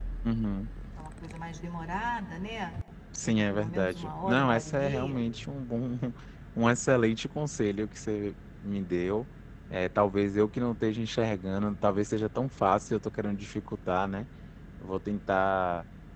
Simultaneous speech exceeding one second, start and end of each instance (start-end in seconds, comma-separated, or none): 3.2-5.2